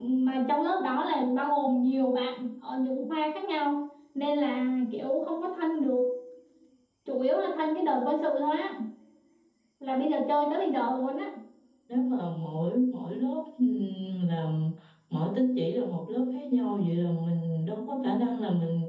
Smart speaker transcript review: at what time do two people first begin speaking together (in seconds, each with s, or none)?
none